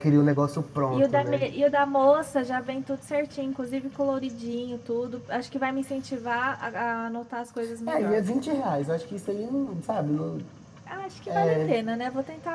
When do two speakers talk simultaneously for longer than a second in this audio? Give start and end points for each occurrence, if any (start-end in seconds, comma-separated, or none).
none